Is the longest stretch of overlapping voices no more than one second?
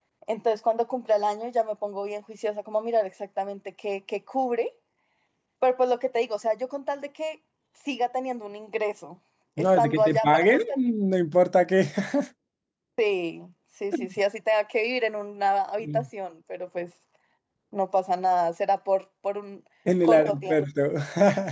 No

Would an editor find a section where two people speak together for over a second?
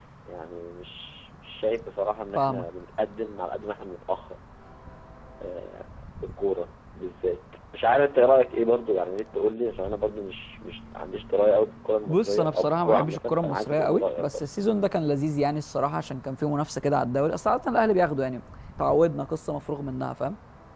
Yes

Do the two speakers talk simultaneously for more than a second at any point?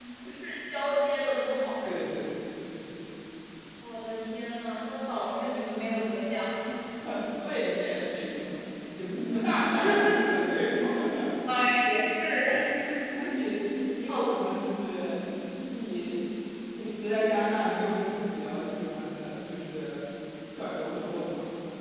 No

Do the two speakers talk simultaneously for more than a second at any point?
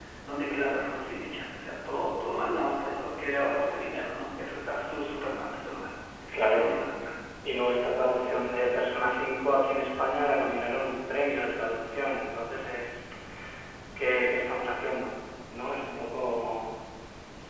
No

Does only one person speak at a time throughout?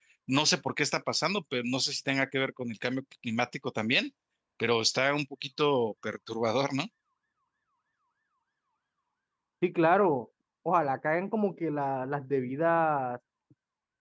Yes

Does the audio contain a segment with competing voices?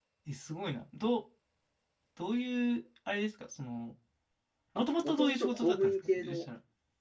Yes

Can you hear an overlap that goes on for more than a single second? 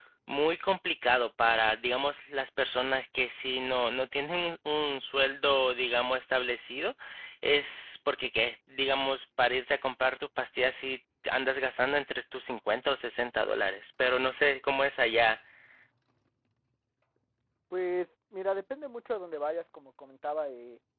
No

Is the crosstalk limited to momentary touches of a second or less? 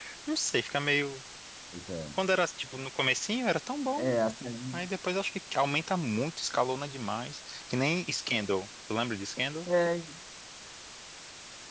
Yes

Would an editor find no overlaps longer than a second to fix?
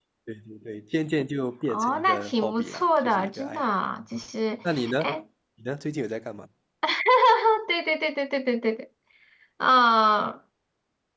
No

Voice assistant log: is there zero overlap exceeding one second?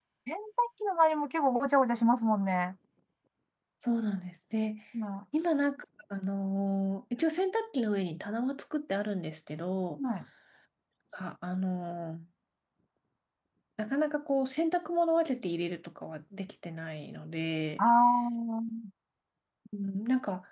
Yes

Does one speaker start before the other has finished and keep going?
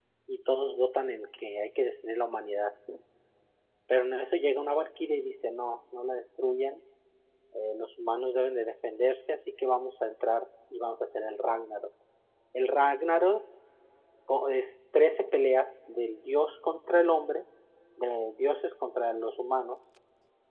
No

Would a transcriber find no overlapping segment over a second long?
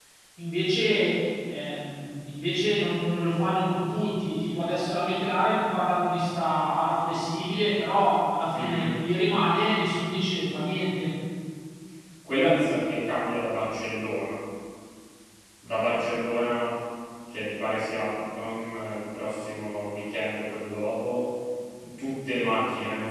Yes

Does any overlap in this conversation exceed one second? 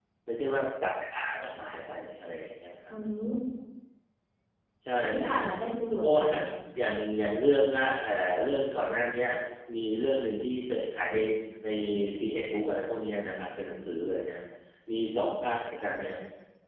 No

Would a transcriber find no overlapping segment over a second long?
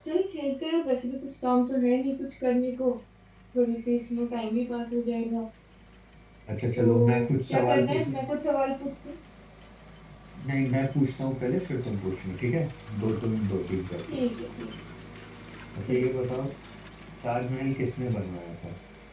No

